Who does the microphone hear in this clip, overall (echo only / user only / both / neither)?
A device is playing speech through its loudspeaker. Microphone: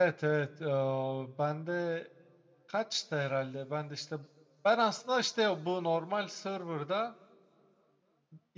user only